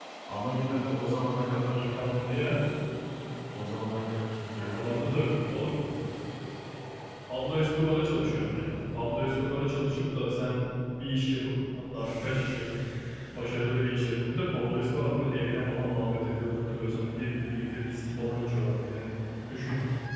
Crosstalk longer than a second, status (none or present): none